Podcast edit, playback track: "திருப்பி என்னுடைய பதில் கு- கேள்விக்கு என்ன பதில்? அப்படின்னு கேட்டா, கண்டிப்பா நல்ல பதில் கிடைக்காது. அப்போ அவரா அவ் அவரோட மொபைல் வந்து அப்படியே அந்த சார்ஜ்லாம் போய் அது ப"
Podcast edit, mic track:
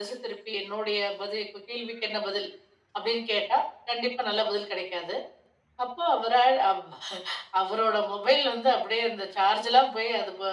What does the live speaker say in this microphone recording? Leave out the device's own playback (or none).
none